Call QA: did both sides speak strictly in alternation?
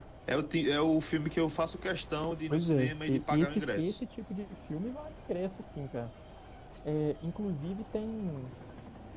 No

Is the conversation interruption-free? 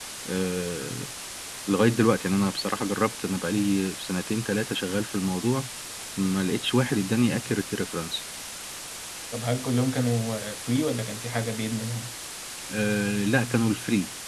Yes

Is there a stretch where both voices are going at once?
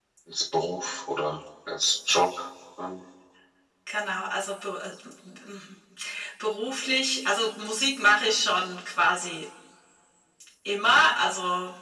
No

